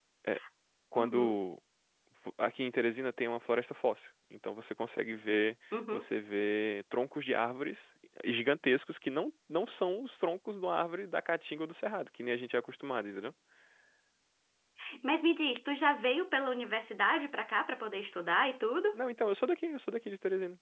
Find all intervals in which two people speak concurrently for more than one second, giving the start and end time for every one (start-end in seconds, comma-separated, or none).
none